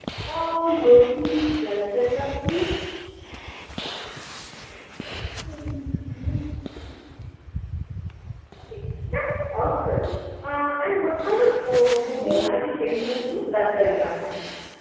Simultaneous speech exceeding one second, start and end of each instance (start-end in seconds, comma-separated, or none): 12.0-13.4